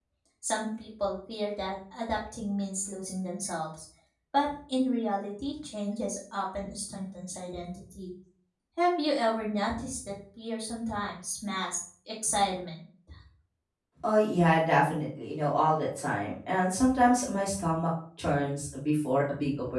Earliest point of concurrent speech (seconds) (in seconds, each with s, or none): none